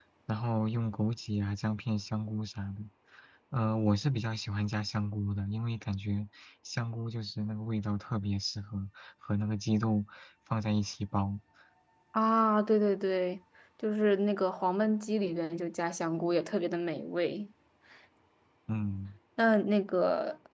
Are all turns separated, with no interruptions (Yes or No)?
Yes